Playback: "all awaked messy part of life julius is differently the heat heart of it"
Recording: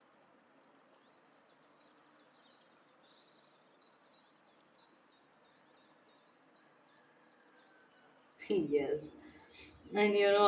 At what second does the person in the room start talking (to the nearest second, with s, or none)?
8 s